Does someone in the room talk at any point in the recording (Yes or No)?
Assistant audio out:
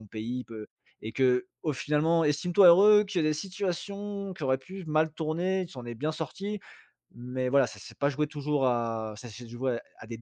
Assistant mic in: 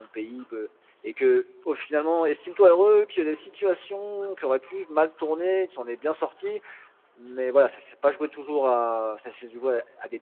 No